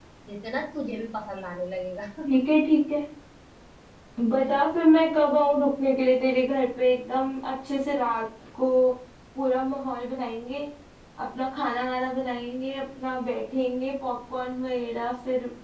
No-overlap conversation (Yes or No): Yes